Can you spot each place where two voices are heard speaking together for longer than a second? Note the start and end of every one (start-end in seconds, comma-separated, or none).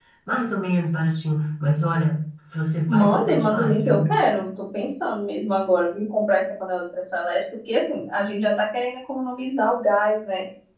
2.9-4.1